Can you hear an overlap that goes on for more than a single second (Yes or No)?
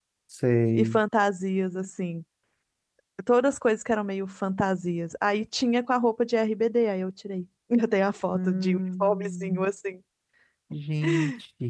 Yes